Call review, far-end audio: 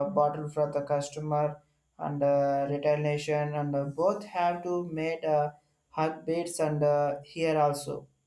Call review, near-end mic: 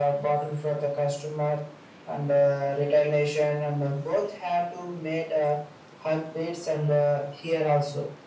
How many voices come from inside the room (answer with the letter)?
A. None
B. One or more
A